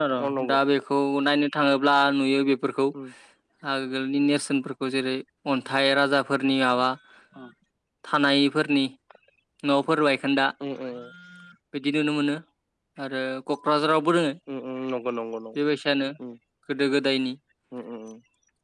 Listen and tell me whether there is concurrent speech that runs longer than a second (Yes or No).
No